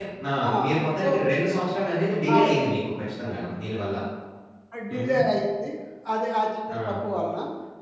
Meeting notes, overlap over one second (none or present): none